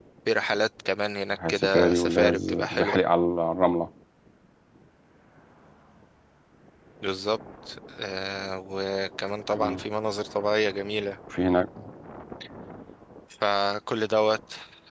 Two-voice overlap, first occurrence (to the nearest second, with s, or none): 1 s